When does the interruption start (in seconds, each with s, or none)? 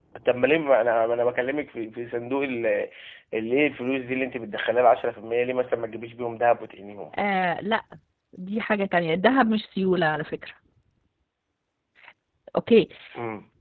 none